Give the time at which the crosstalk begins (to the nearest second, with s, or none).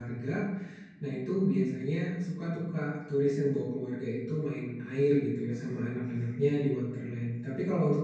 none